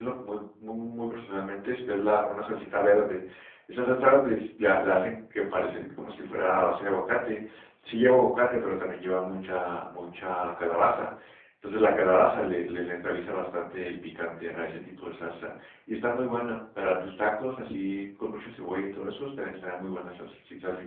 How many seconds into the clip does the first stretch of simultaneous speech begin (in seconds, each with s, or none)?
none